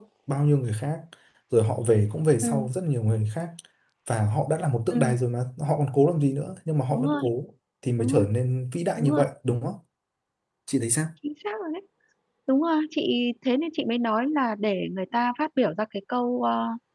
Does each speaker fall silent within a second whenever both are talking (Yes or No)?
Yes